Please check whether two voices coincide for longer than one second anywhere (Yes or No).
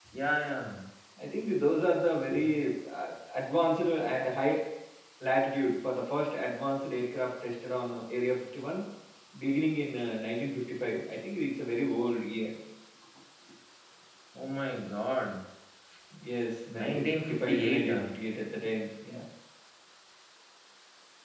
Yes